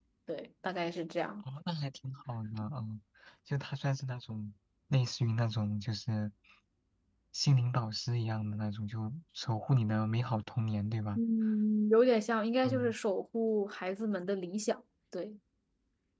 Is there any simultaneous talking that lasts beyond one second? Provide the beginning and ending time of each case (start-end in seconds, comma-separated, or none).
none